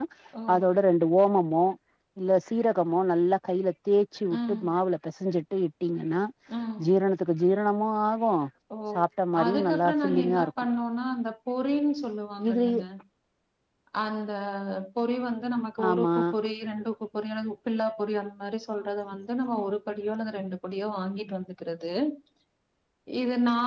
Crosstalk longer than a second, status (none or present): present